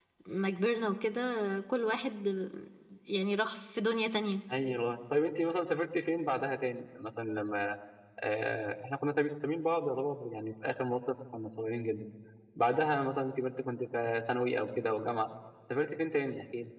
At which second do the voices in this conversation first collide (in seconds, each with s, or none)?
none